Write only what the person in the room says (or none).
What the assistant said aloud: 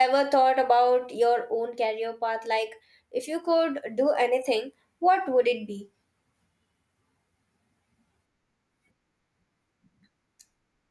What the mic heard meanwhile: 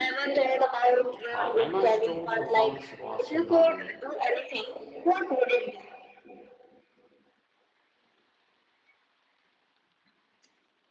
Uh, Emma Stone's performance was phenomenal.